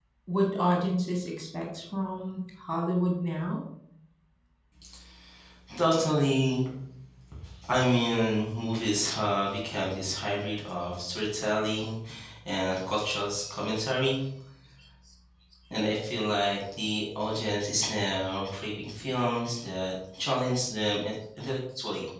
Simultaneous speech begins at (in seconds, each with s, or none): none